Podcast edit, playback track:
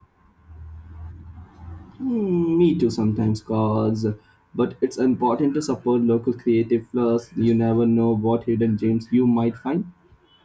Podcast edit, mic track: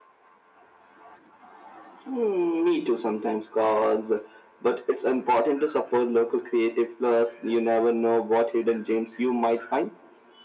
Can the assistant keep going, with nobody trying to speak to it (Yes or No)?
Yes